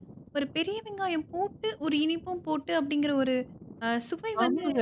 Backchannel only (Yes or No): No